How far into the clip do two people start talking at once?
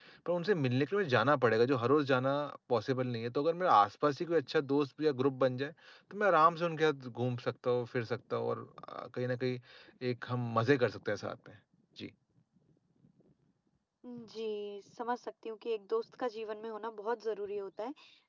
none

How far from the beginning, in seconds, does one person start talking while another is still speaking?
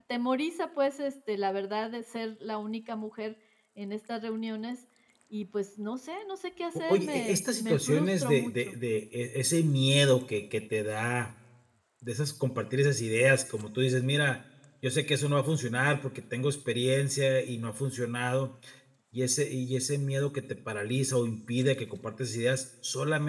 6.9 s

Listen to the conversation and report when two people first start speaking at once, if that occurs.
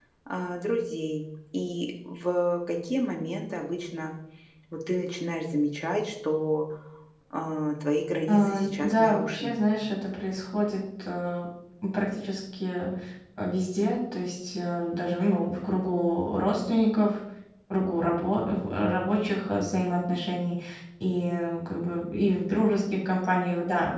8.3 s

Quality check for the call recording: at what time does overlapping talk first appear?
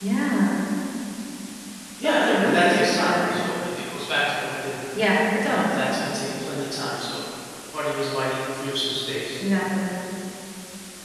2.0 s

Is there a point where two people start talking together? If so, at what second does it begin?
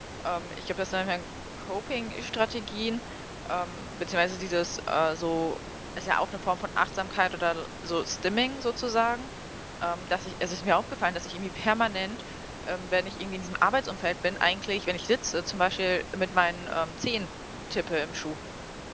none

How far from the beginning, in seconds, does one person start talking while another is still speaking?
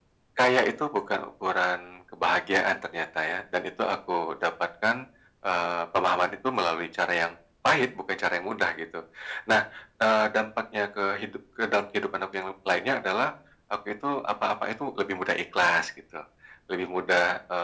none

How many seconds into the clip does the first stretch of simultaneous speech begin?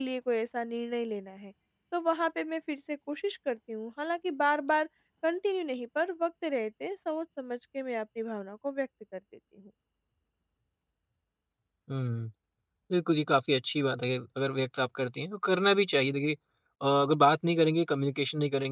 none

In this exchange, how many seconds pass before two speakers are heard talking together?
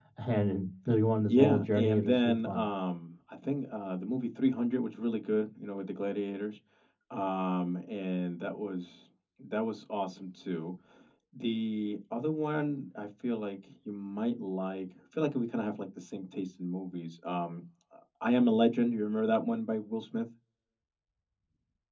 1.3 s

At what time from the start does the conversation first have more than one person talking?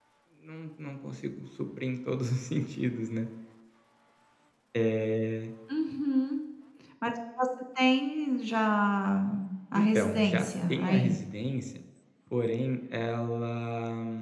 9.7 s

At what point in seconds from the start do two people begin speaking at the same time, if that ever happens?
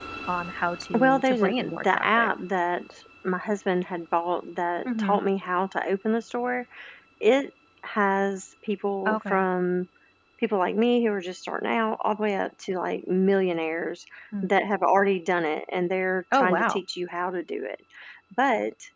1.0 s

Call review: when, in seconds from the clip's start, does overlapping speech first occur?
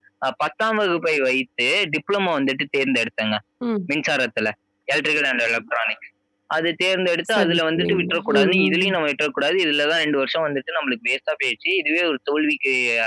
7.3 s

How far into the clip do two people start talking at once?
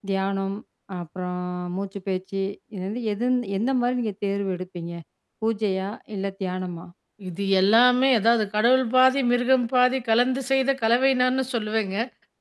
none

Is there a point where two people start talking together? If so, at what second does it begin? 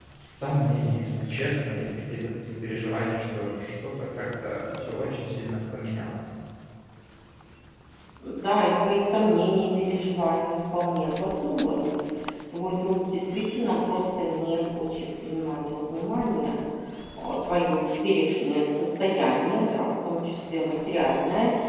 none

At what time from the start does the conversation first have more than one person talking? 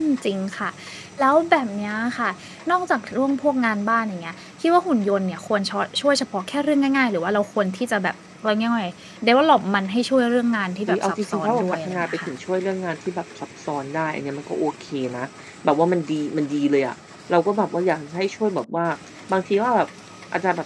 10.9 s

